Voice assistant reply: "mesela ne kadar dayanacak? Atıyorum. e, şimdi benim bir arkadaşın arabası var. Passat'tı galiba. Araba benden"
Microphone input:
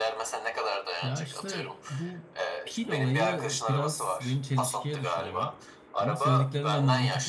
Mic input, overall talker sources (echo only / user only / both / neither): both